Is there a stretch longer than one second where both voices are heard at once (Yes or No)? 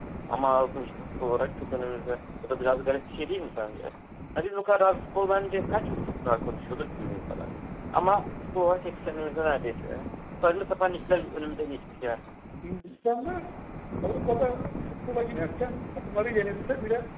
No